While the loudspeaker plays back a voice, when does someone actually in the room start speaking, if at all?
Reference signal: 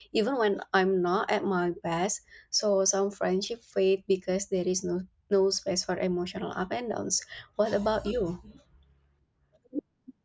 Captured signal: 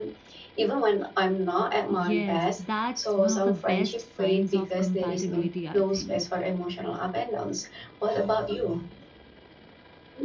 2 s

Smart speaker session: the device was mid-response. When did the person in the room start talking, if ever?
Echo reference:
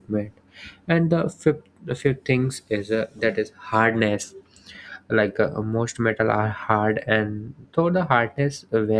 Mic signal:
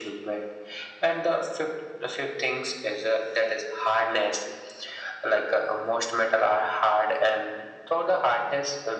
none

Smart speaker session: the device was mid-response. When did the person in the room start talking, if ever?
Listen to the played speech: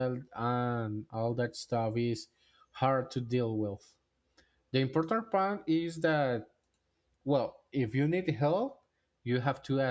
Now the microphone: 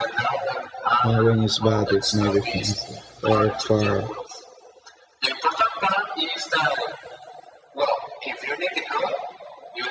1 s

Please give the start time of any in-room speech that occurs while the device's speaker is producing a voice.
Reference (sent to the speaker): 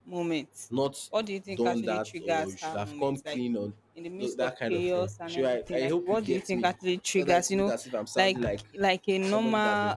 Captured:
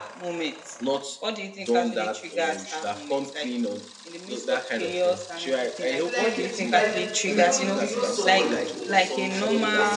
6 s

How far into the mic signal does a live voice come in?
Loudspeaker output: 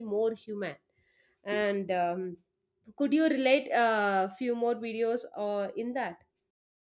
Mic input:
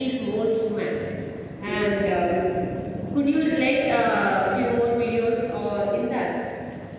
none

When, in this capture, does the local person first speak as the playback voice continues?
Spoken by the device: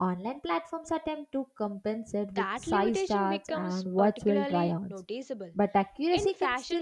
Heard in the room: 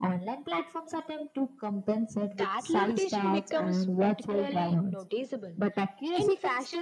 none

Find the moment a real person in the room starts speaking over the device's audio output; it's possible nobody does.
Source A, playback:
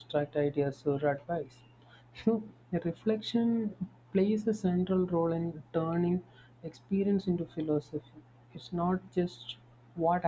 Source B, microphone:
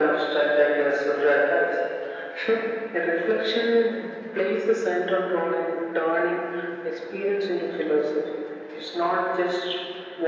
none

